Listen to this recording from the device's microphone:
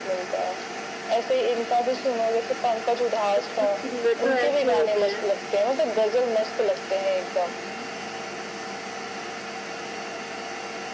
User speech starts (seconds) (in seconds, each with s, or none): 3.3 s